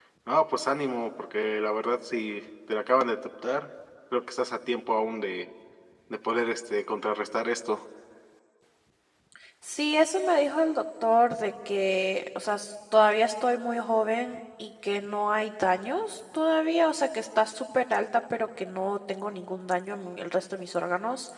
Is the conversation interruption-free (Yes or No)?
Yes